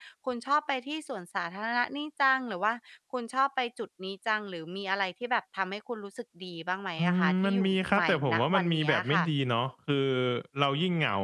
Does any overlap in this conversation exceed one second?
Yes, from 7.0 s

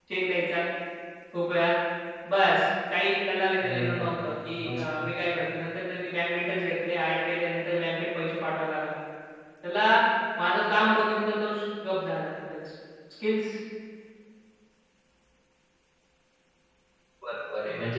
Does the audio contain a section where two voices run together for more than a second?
No

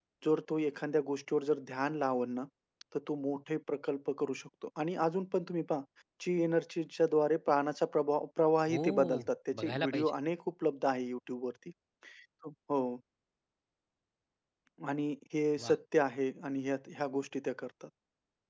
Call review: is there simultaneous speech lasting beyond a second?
Yes, from 8.7 s

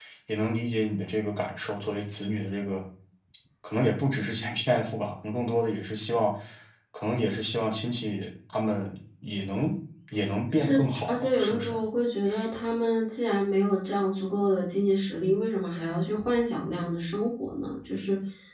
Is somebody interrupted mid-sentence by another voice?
Yes, from 10.5 s

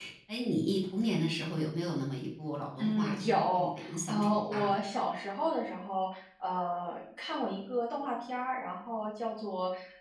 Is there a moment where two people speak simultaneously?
Yes, from 2.8 s

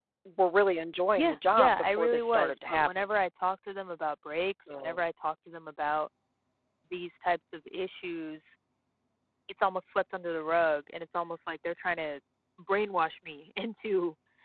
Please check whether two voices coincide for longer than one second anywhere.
Yes, from 1.2 s

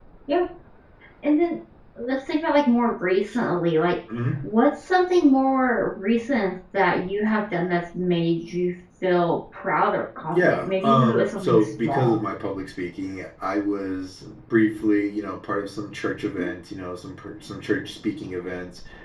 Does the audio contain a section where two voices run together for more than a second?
Yes, from 10.3 s

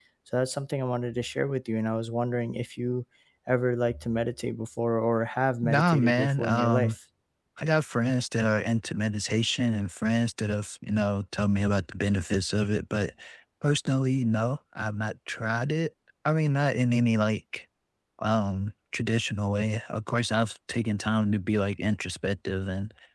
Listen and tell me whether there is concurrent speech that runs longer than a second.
Yes, from 5.6 s

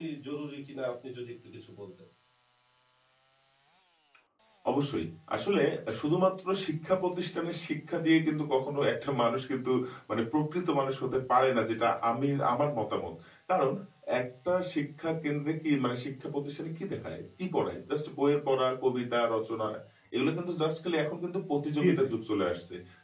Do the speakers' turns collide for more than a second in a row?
No

